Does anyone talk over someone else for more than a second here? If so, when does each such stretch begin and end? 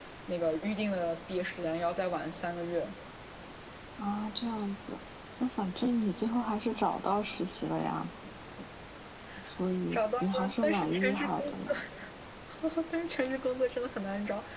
9.9-11.8

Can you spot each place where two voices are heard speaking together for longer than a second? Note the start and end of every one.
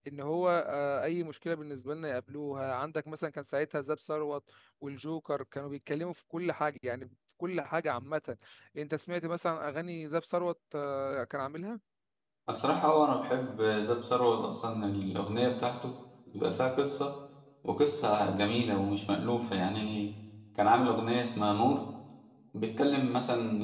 none

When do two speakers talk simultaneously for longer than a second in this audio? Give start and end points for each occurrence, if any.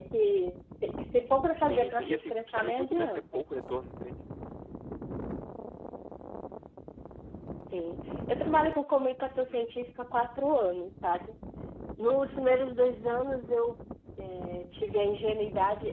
1.6-3.2

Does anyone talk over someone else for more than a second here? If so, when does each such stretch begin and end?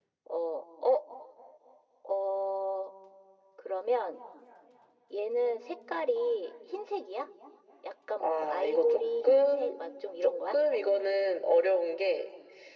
8.2-9.8

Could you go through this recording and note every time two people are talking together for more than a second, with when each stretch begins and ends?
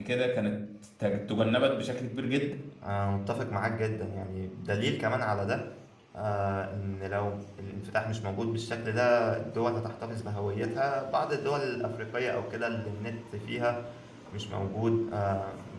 none

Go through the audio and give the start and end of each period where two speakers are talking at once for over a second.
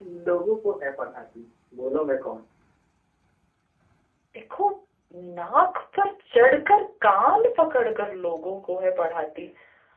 none

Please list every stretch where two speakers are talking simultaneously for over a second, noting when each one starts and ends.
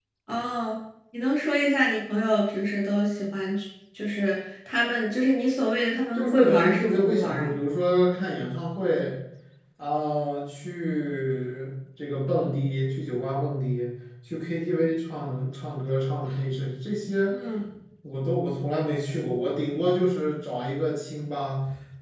6.1-7.5

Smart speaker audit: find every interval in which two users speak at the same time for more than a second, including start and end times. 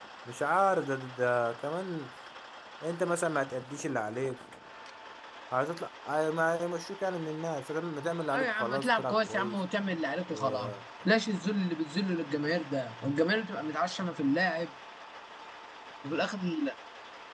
8.3-9.6

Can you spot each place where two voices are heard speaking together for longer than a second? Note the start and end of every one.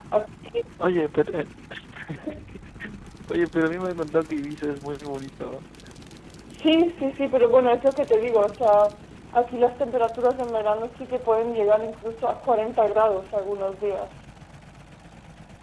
none

